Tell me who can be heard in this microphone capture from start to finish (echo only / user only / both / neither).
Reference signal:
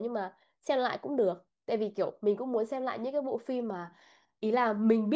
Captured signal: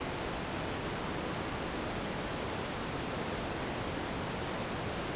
neither